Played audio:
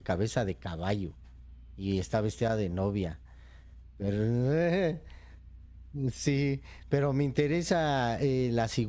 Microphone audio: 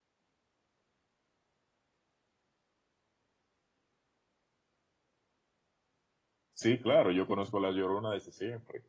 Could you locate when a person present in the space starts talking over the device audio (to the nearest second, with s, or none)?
7 s